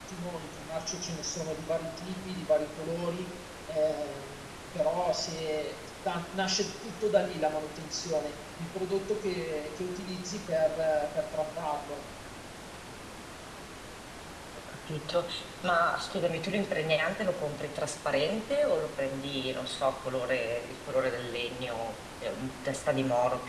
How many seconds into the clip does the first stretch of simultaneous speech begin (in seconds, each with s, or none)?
none